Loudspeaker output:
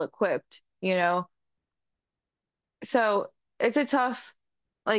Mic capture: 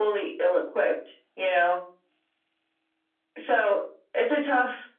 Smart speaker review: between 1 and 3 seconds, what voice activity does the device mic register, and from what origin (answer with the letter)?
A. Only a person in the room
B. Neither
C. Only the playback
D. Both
C